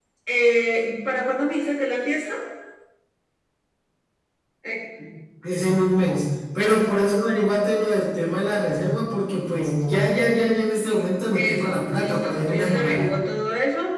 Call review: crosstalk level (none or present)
present